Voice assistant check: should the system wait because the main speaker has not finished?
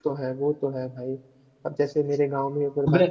Yes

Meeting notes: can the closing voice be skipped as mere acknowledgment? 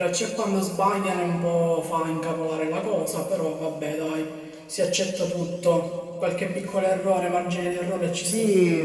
No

